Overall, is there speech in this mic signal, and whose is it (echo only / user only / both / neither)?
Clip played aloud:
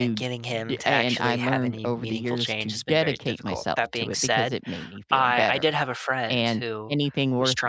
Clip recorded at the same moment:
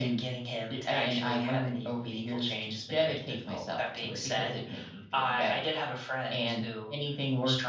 echo only